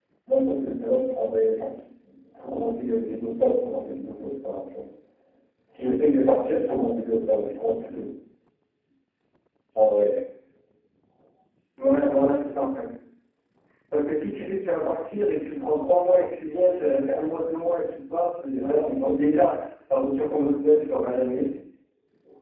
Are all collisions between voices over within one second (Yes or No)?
Yes